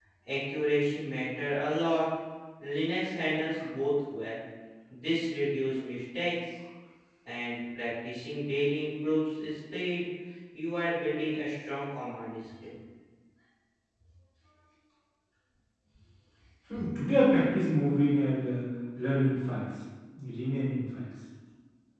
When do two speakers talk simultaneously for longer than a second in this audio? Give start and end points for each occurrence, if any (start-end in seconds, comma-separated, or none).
none